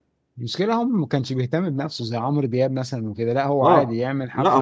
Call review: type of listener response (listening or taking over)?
taking over